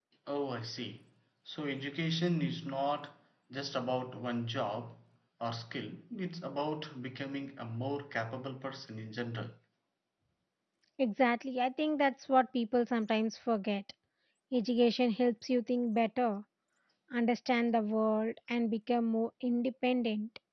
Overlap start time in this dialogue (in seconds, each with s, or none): none